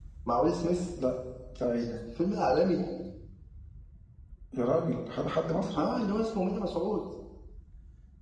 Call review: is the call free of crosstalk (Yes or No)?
Yes